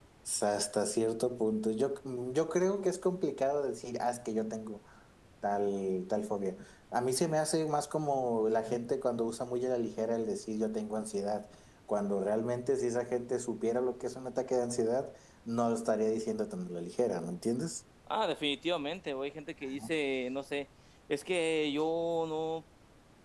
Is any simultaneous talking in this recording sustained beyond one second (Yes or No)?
No